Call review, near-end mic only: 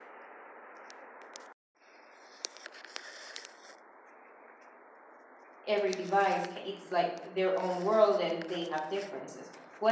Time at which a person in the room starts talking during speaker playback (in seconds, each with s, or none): 5.6 s